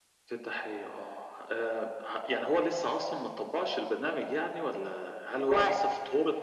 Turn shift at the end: No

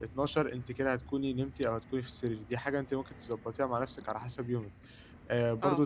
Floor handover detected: No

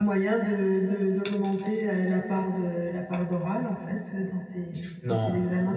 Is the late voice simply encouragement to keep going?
No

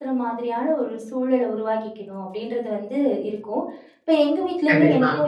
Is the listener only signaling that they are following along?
Yes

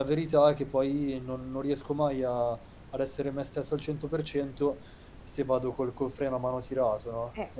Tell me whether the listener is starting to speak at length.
Yes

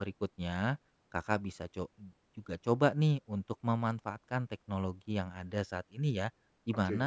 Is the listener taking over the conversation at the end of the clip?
No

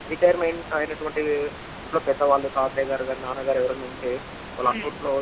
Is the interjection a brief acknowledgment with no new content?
Yes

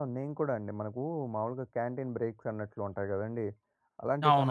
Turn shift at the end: No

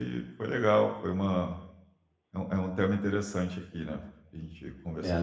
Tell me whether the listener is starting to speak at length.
Yes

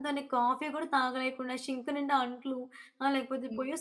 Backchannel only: Yes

